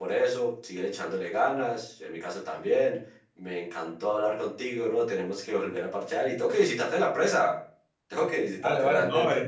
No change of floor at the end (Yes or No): No